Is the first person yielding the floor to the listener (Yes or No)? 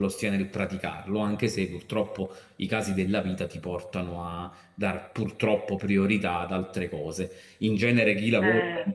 No